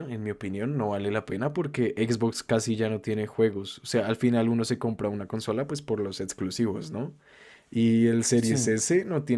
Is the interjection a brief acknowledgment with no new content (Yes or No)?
Yes